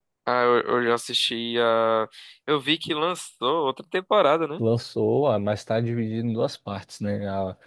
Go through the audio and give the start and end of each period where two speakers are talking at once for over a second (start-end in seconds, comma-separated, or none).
none